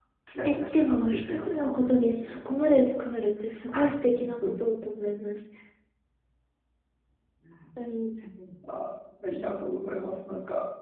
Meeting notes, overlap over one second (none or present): present